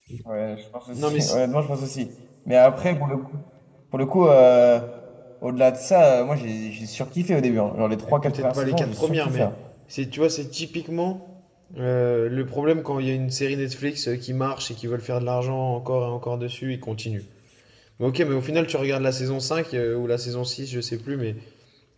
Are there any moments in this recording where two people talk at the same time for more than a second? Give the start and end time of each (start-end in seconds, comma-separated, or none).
8.1-9.5